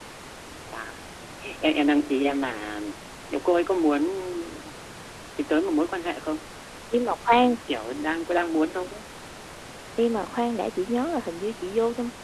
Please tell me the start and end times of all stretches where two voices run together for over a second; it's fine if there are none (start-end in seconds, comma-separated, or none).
none